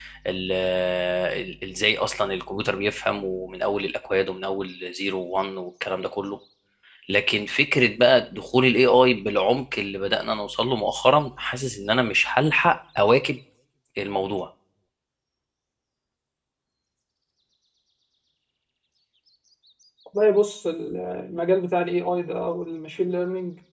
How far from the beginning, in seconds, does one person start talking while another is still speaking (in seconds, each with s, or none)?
none